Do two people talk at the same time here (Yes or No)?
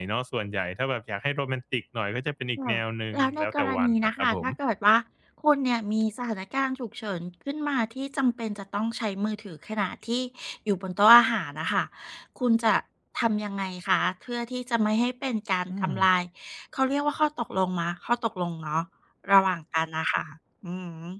Yes